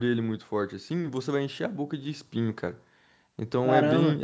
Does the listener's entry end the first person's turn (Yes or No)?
Yes